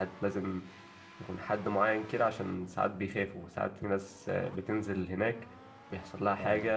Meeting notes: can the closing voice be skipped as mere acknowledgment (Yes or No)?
Yes